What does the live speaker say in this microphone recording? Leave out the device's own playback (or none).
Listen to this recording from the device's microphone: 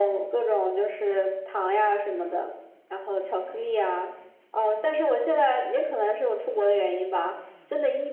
none